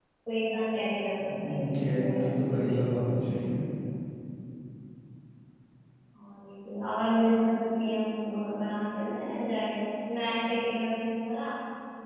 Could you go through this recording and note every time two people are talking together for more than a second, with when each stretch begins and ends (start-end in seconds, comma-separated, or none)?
1.4-2.9